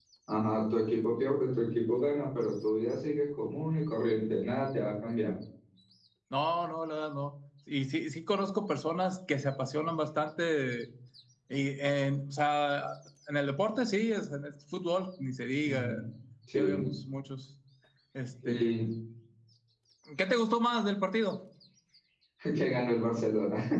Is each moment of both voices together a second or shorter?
Yes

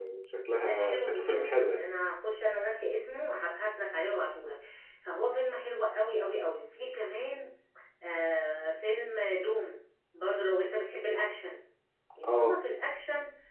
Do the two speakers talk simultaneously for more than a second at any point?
Yes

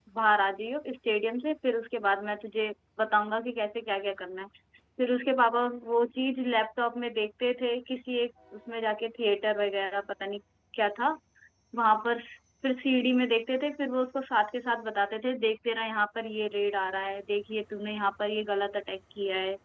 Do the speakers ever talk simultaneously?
No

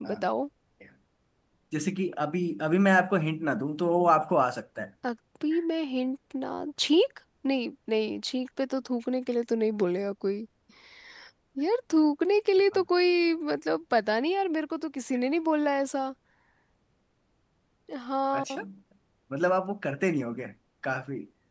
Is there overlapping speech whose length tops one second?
No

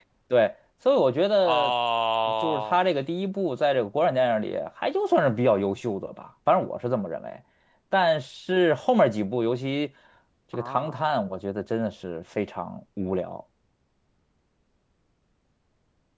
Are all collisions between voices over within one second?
Yes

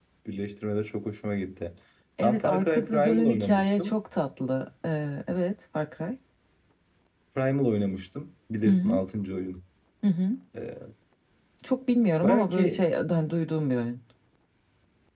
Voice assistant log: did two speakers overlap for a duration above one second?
Yes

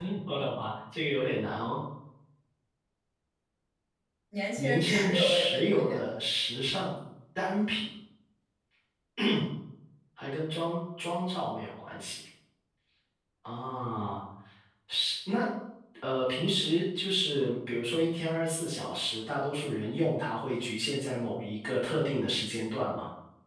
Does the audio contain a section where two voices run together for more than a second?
Yes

